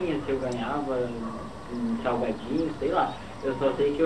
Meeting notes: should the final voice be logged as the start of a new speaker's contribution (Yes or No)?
No